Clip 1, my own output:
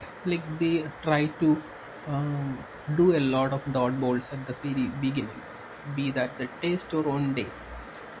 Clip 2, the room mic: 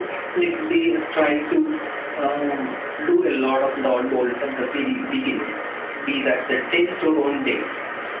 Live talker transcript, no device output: none

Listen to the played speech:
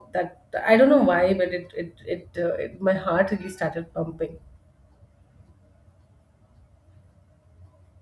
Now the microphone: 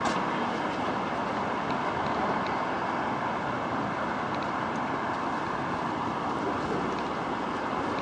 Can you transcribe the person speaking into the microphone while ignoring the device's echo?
none

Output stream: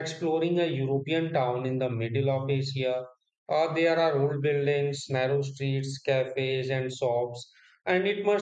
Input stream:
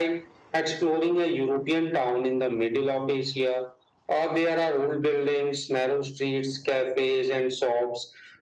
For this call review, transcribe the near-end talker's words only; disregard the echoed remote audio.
none

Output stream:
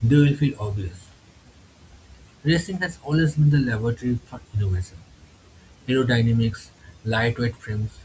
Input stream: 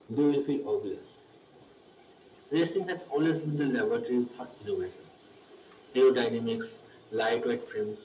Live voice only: none

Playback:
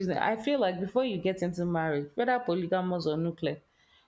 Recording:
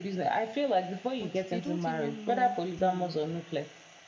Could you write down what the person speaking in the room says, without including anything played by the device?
But they don't even know the

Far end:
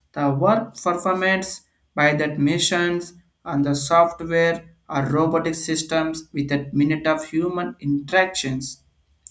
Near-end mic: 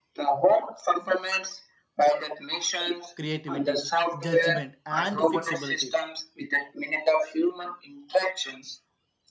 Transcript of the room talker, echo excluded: creativity, judgment, and fixability.

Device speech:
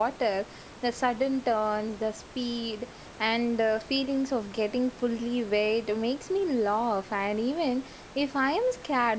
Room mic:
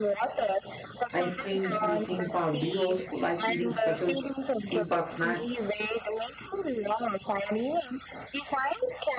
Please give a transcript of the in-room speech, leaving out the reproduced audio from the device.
ice creams in the theme park. Do you also like eating special theme park snacks?

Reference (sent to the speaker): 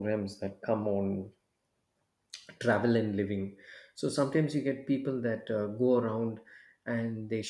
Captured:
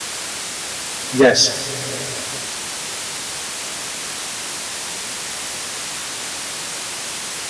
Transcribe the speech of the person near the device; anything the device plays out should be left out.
Yes,

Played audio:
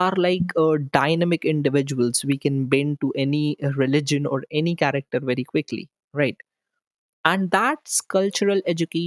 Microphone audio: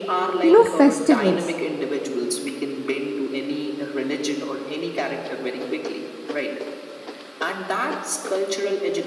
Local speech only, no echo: you know festivals.

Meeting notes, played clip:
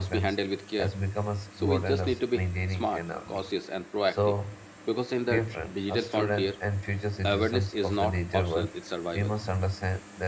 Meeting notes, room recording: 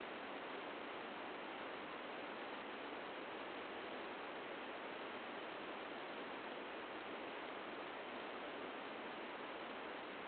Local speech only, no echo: none

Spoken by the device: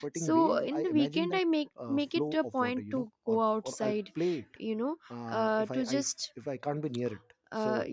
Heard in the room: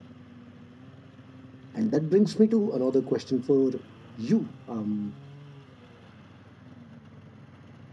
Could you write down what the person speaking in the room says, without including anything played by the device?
And that brings me to another question for you. Um,

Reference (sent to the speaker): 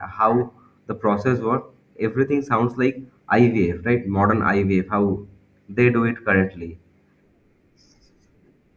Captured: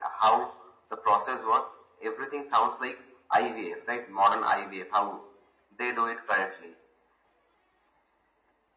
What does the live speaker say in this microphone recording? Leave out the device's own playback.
none

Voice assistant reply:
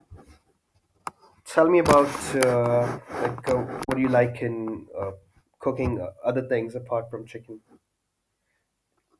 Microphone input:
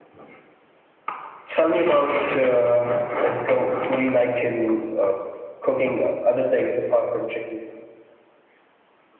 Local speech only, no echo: none

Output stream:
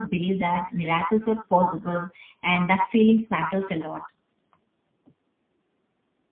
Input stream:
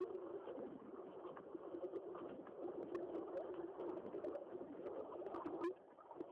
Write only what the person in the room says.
none

